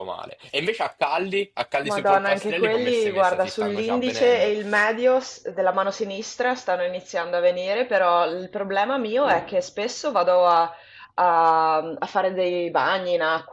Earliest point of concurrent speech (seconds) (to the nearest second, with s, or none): 2 s